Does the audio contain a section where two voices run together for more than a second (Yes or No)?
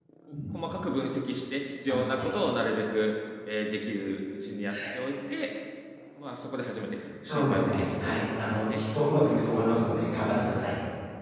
Yes